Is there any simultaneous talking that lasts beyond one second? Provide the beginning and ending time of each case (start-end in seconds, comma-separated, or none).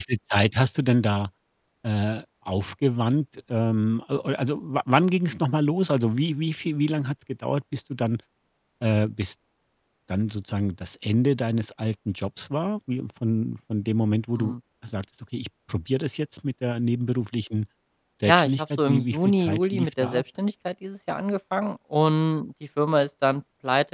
18.3-20.2